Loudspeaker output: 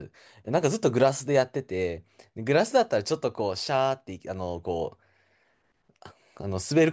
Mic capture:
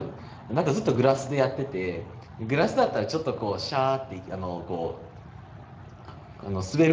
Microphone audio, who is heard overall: echo only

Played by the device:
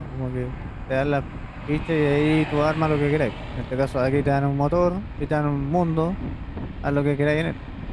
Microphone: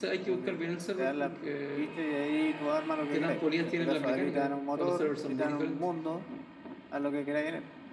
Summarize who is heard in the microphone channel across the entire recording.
both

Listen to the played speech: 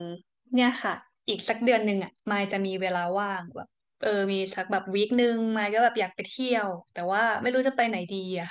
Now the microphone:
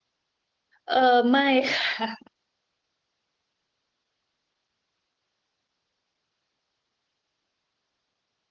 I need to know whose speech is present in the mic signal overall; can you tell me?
user only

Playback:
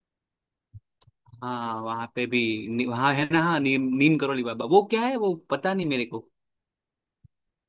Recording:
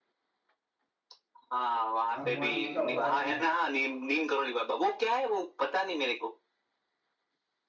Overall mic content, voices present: both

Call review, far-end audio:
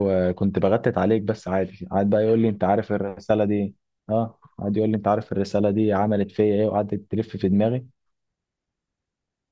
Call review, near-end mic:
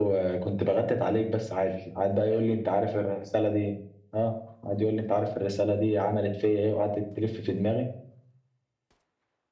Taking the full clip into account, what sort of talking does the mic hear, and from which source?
echo only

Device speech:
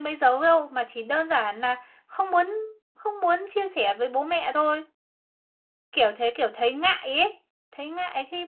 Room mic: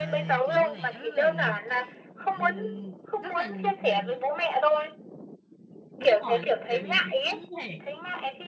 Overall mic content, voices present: both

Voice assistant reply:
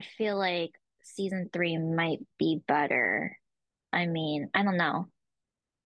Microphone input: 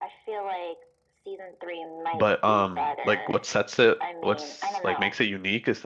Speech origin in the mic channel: both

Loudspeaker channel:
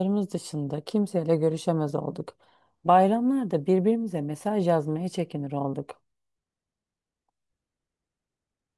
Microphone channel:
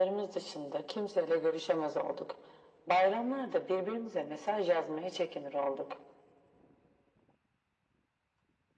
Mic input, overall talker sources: echo only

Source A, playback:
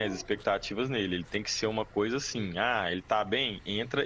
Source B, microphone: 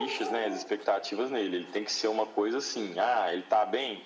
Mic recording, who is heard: echo only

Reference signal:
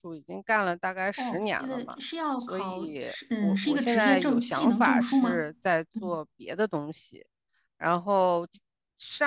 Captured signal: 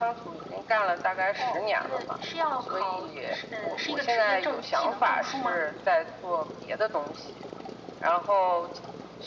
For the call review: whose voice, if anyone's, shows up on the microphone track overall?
echo only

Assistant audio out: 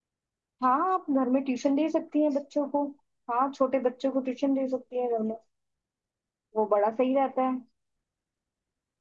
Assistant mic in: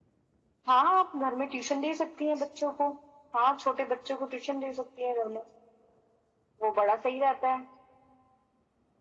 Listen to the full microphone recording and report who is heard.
echo only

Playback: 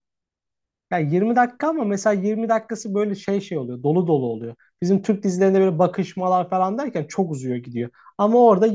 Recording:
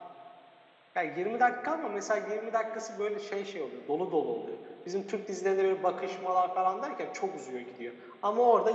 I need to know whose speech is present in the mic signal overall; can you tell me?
echo only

